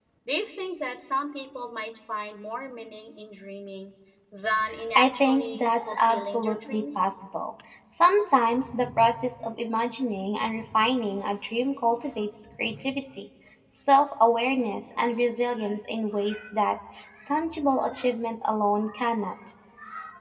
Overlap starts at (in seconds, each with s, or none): 4.9 s